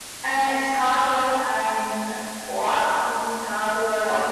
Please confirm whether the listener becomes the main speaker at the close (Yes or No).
No